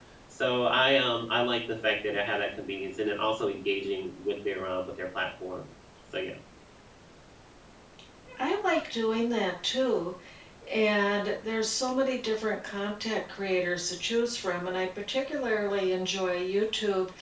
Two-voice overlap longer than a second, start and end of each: none

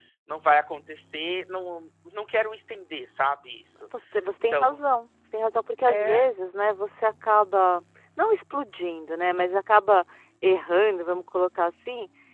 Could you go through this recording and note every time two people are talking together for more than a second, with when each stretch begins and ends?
none

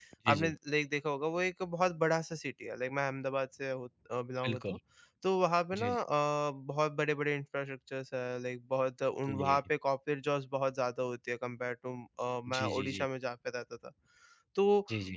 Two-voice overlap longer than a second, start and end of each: none

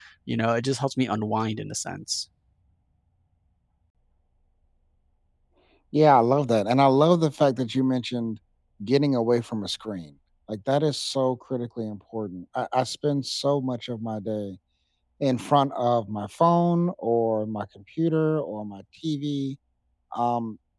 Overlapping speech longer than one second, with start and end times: none

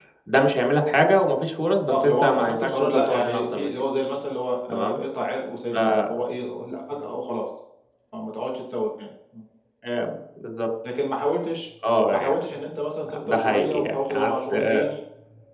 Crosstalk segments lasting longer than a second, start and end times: 1.9-3.7, 13.2-14.8

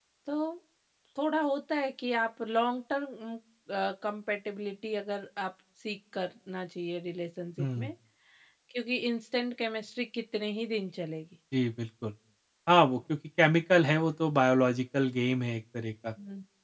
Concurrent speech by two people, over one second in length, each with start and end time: none

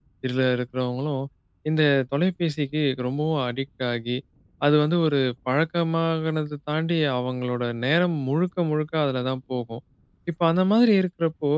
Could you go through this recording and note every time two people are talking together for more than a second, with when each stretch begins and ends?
none

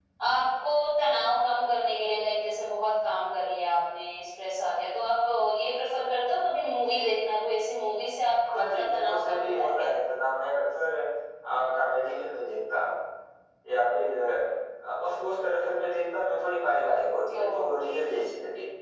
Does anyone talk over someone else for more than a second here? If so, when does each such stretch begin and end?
8.5-9.9

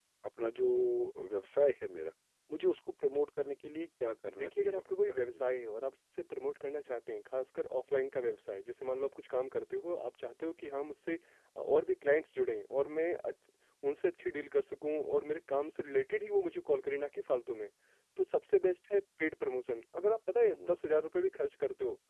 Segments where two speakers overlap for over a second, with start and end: 4.3-5.6

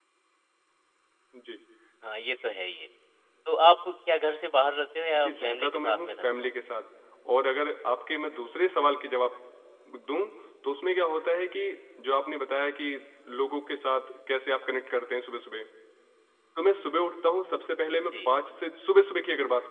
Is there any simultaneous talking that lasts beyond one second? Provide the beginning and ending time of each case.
5.2-6.5

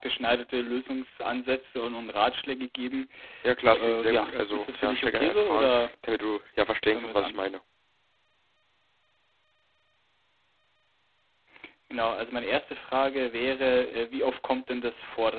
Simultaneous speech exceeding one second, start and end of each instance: 3.8-5.9

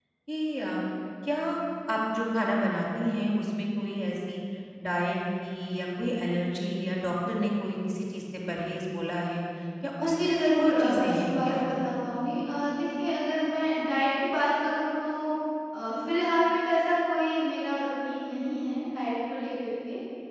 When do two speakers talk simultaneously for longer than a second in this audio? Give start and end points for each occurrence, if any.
10.0-11.6

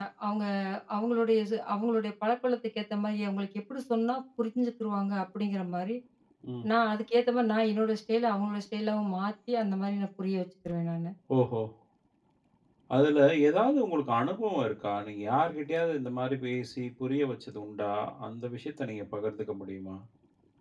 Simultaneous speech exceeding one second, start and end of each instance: none

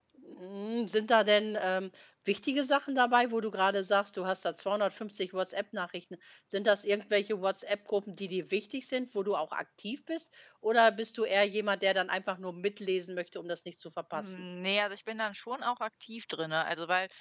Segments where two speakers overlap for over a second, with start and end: none

